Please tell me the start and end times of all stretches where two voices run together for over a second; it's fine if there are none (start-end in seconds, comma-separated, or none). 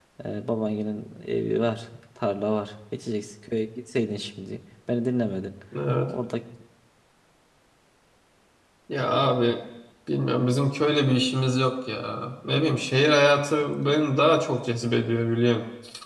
none